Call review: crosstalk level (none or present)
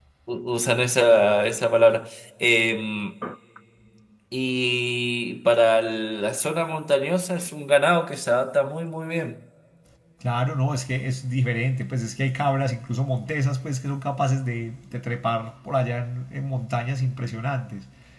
none